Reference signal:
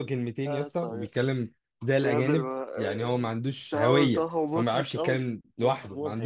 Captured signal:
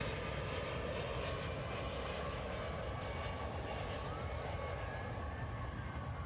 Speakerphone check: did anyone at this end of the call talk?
No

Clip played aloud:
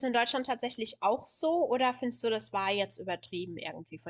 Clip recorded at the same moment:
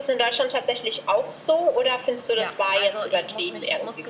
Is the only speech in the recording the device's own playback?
No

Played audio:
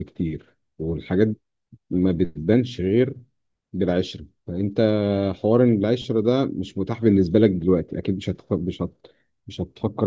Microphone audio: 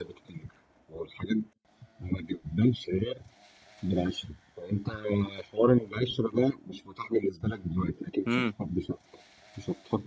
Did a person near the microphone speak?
Yes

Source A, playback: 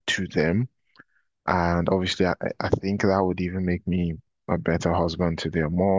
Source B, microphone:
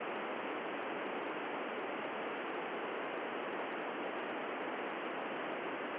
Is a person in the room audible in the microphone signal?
No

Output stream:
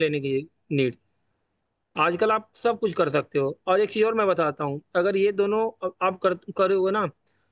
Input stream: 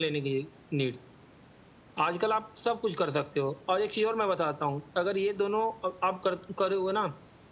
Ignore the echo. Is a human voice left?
No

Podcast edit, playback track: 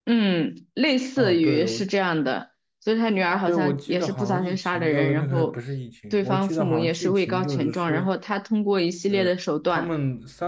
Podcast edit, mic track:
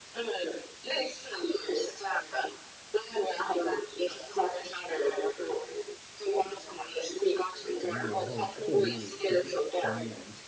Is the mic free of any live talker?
No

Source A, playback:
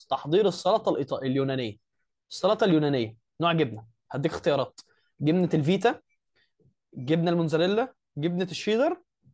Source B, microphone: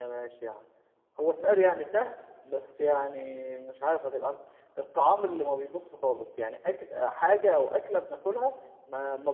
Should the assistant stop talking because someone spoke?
Yes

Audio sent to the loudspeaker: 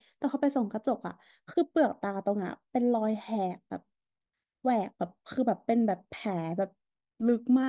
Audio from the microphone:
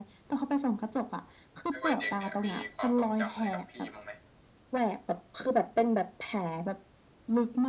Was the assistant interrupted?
Yes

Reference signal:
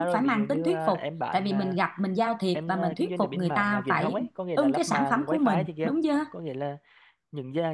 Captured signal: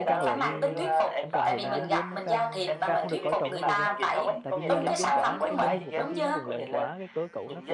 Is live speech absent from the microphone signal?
No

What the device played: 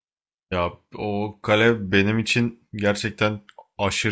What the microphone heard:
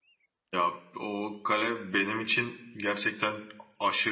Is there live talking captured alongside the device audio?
No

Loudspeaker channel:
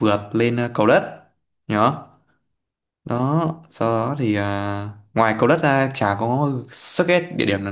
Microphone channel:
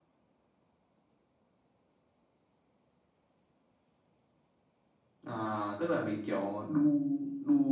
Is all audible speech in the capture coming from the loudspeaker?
No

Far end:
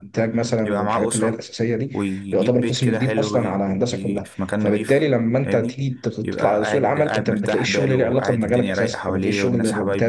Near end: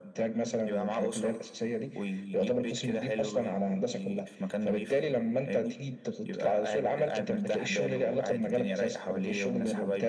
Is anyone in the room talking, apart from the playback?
No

